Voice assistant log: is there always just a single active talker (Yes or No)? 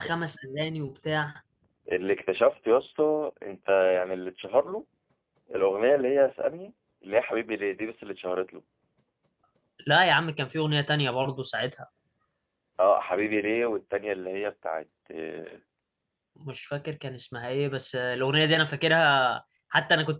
Yes